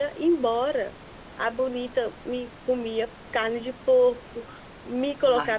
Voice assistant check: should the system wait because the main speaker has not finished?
Yes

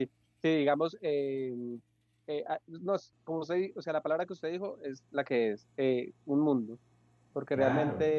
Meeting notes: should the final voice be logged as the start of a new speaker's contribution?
No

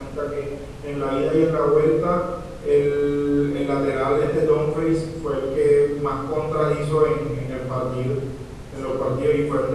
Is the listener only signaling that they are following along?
Yes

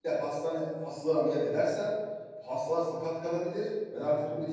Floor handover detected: No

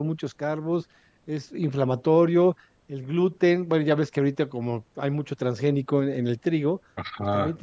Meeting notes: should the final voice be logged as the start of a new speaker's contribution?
No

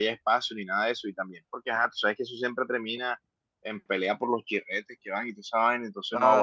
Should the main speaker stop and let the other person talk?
Yes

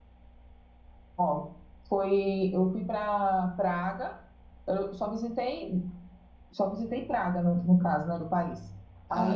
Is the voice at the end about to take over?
No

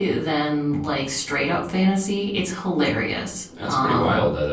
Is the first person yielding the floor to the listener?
Yes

